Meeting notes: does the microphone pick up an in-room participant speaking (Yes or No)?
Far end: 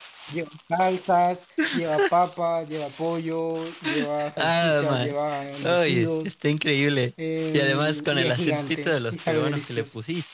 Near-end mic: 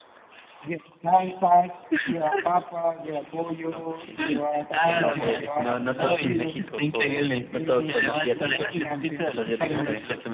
Yes